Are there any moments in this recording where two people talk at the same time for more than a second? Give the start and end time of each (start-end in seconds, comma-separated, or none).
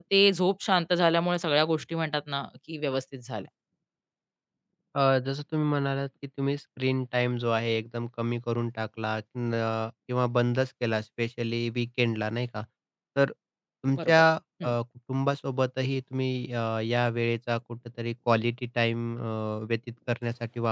none